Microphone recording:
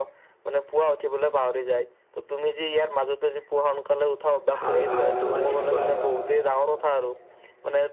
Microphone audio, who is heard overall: both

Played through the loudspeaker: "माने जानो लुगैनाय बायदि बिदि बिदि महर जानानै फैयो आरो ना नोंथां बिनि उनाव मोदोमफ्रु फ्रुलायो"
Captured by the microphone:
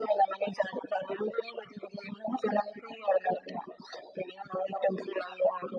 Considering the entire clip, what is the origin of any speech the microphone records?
echo only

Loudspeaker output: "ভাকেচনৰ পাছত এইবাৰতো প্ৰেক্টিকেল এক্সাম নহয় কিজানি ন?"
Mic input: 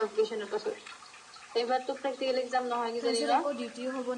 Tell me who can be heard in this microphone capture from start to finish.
both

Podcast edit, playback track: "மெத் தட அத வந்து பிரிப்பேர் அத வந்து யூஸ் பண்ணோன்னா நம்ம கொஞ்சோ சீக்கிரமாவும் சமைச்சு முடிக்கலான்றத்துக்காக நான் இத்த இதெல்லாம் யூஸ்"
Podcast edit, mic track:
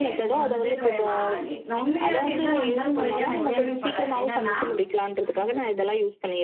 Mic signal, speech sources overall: both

